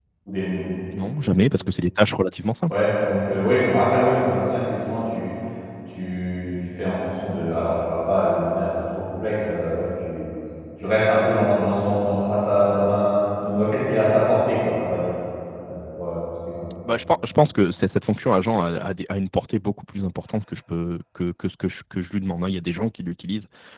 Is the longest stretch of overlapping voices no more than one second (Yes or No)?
Yes